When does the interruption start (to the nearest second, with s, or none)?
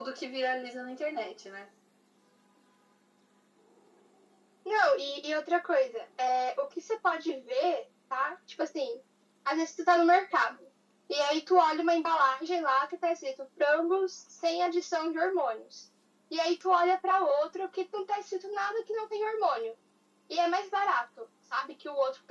none